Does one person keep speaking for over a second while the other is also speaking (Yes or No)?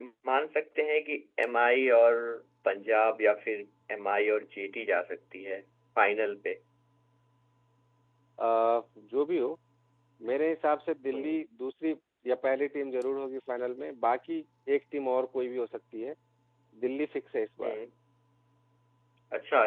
No